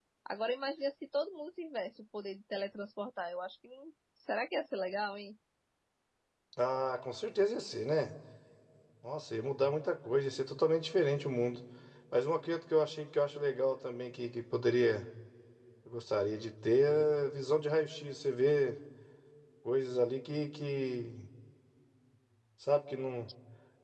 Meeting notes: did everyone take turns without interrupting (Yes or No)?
Yes